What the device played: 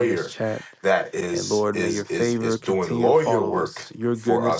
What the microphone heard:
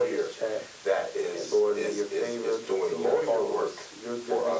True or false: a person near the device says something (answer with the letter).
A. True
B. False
B